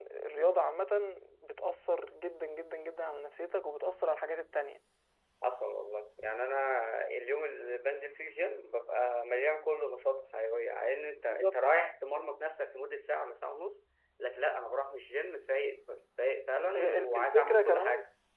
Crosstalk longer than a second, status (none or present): present